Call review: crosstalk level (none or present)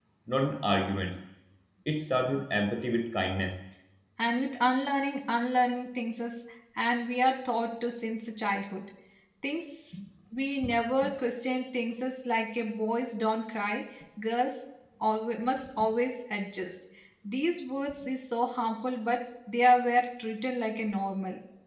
none